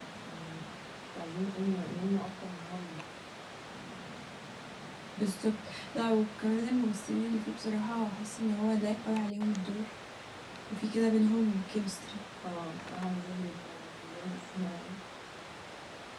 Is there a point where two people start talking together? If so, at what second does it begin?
none

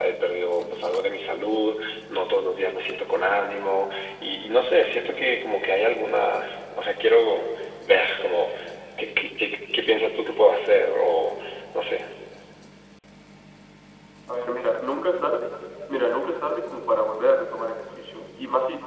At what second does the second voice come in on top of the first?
none

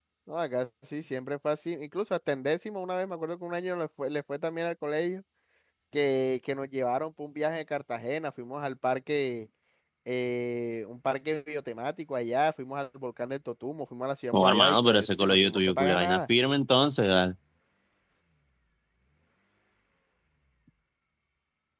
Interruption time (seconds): 14.3 s

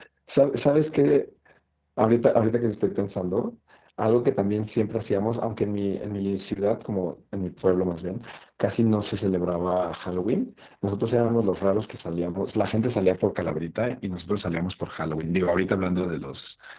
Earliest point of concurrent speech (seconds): none

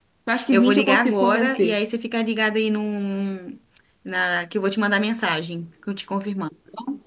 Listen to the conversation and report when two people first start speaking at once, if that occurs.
0.5 s

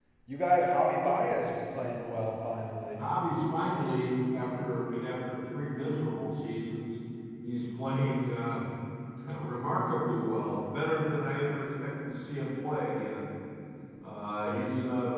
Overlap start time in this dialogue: none

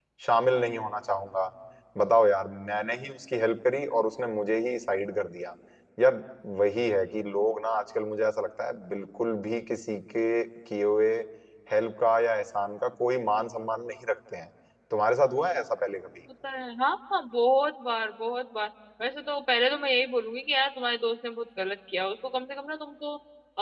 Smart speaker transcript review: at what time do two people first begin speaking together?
none

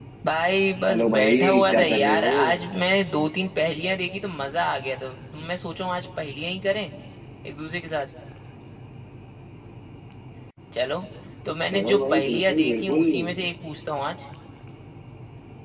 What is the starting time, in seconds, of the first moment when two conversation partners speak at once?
0.9 s

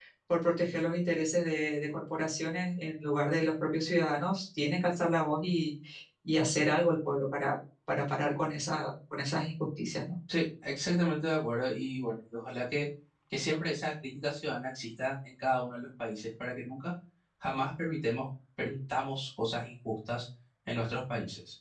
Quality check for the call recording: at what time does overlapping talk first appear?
none

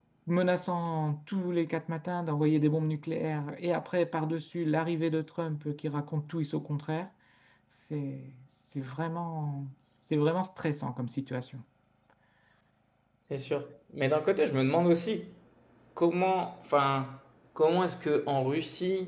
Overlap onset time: none

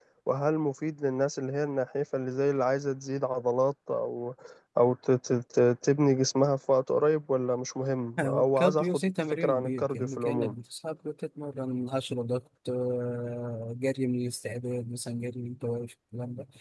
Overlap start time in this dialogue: 8.2 s

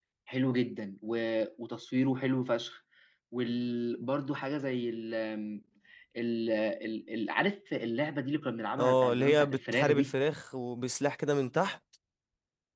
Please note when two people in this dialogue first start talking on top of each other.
8.8 s

